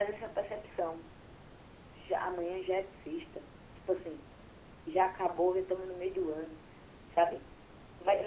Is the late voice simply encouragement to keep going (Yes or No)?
Yes